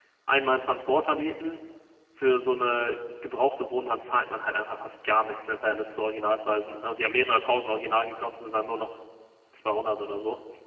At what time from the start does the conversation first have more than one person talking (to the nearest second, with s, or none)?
none